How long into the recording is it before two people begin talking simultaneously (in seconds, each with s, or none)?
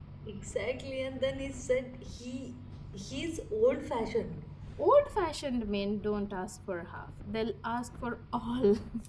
none